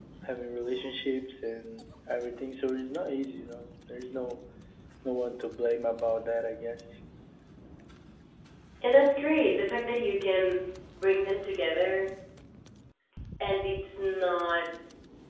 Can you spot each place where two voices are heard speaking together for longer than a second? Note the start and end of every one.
none

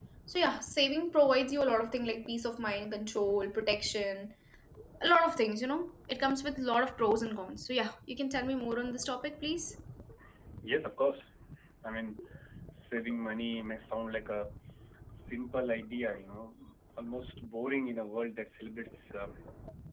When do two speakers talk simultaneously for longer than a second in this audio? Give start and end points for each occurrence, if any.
none

